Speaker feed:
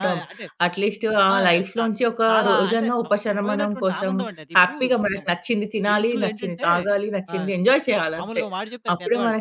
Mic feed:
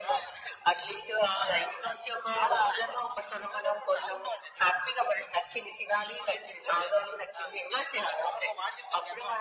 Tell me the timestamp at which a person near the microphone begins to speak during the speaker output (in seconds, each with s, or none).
none